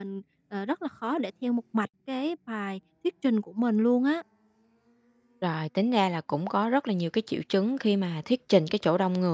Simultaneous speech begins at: none

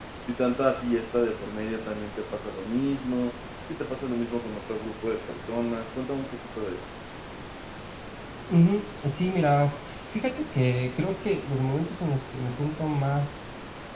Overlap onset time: none

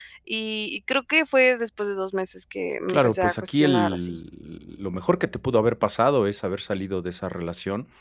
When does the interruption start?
3 s

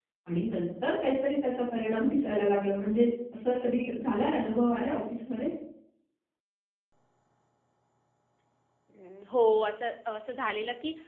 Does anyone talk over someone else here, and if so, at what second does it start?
none

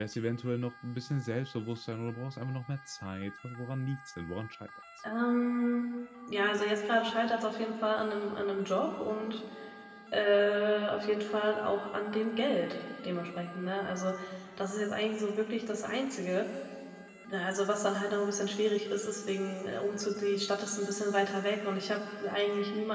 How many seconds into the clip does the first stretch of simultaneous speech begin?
none

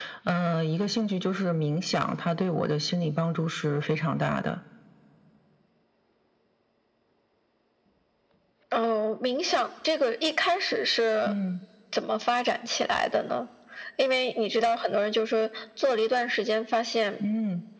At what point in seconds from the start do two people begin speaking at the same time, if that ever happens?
none

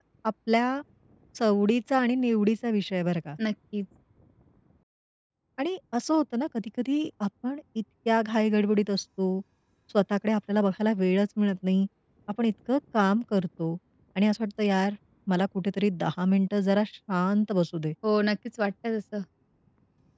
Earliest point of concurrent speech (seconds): none

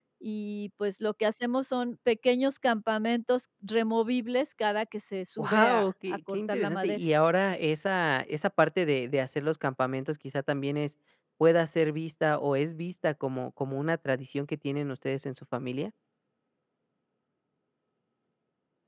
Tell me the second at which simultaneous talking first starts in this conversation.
5 s

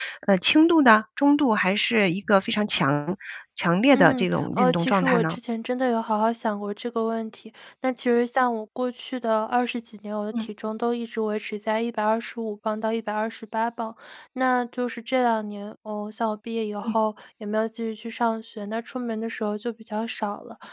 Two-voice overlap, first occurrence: 4 s

